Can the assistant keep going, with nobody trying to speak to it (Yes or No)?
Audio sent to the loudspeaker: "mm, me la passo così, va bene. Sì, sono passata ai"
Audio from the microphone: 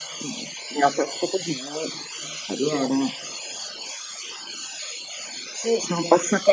Yes